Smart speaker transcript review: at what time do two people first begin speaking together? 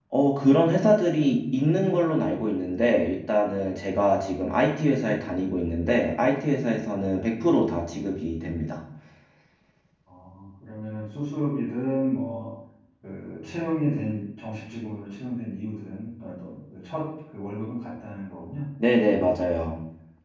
none

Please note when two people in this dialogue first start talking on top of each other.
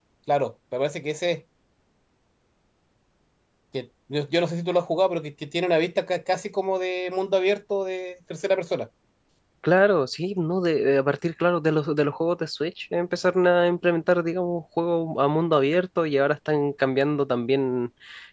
none

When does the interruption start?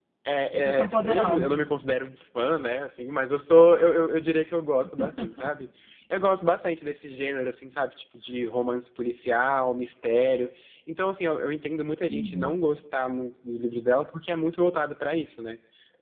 1 s

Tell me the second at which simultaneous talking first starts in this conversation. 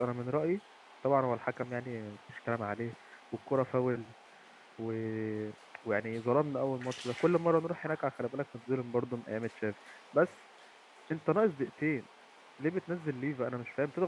none

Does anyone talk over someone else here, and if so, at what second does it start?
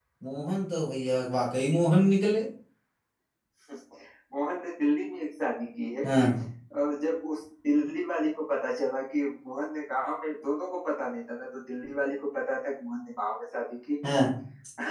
none

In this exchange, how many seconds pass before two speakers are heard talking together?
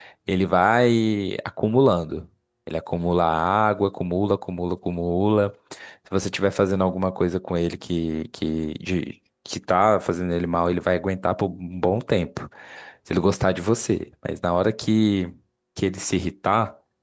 none

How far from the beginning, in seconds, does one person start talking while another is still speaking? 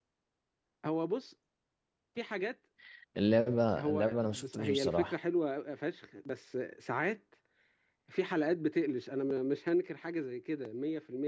4 s

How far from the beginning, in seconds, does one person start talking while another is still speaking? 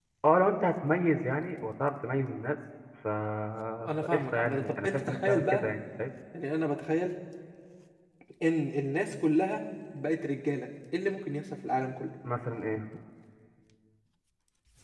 4 s

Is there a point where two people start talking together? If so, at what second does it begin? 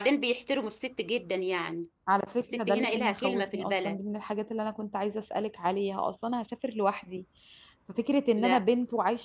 2 s

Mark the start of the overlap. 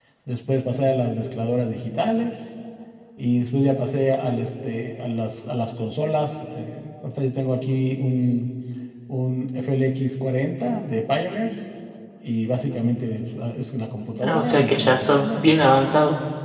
14 s

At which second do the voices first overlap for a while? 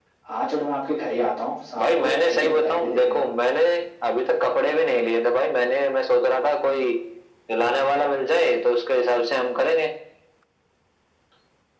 2 s

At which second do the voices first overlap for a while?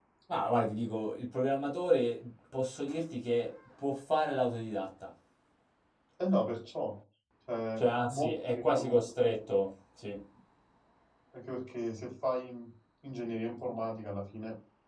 8 s

